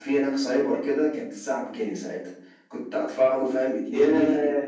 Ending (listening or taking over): listening